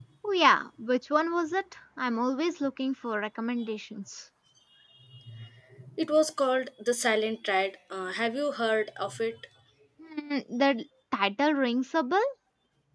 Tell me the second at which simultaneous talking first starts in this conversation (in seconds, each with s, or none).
none